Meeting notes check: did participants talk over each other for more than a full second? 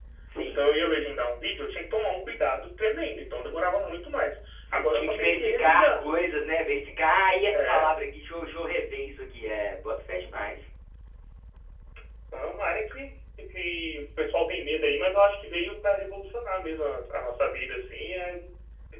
Yes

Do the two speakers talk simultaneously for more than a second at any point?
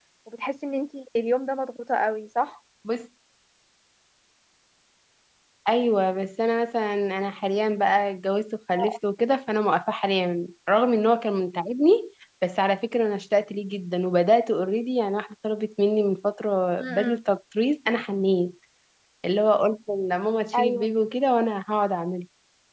No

